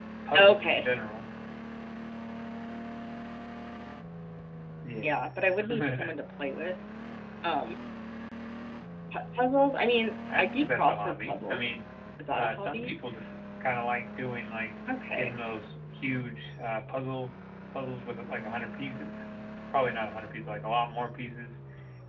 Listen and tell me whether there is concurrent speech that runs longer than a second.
Yes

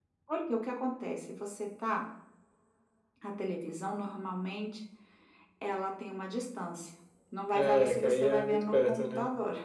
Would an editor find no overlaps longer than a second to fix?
No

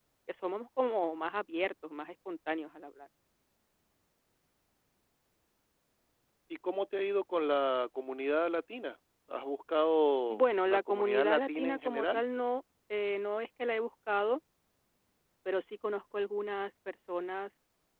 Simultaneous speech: Yes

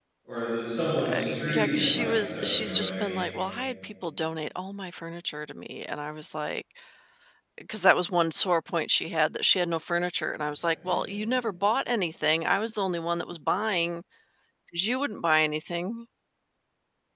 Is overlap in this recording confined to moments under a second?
No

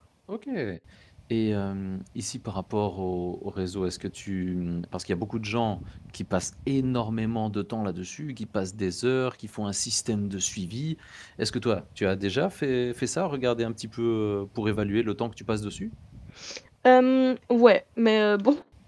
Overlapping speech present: No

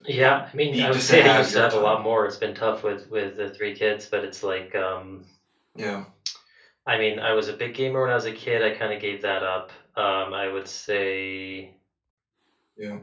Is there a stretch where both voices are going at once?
Yes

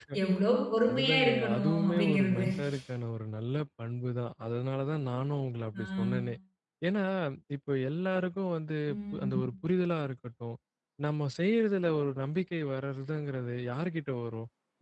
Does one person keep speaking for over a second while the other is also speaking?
Yes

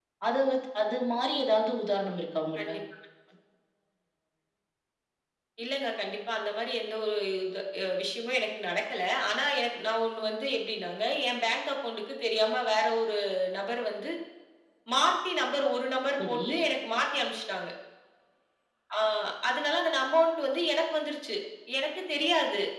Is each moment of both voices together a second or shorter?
Yes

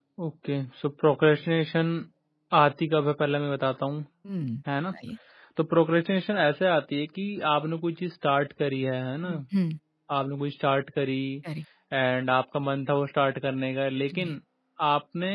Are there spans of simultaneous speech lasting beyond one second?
No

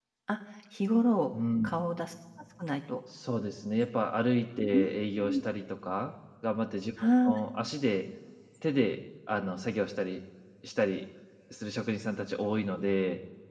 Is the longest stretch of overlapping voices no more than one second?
Yes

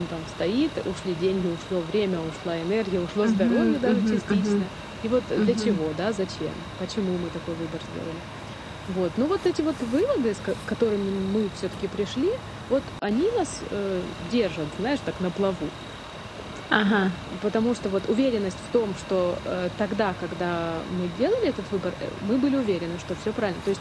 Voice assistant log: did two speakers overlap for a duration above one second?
Yes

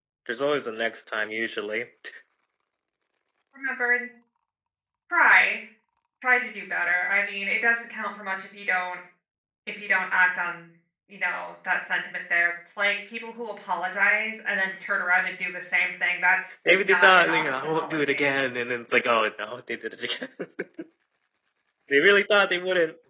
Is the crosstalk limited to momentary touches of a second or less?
No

